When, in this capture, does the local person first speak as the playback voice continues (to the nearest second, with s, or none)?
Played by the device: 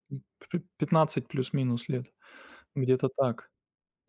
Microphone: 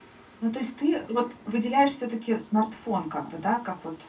0 s